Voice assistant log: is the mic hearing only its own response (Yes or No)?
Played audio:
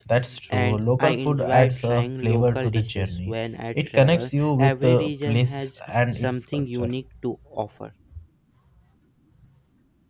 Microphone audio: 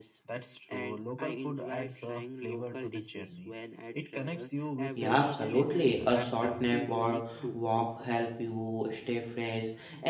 No